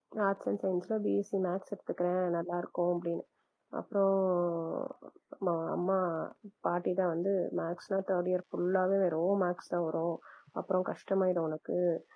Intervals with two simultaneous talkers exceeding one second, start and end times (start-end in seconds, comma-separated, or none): none